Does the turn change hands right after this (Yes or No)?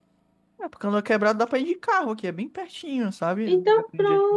Yes